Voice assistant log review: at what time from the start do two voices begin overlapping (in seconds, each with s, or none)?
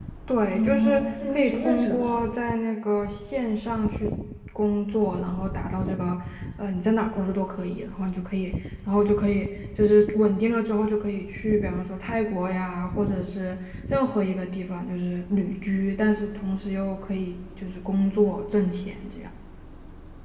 0.5 s